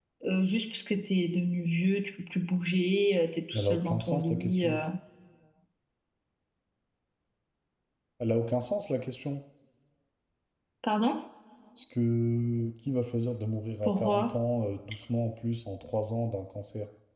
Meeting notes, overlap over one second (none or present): present